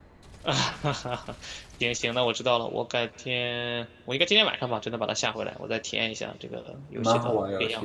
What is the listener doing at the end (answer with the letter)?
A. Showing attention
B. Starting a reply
B